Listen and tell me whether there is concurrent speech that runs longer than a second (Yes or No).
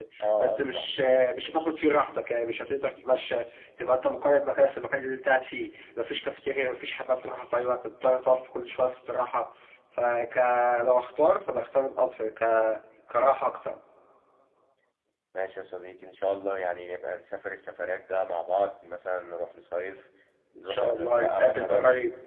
Yes